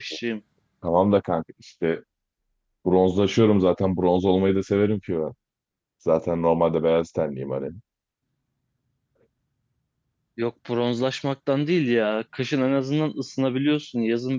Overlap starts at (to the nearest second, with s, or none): none